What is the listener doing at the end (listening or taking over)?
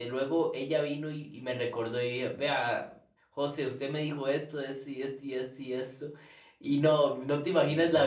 listening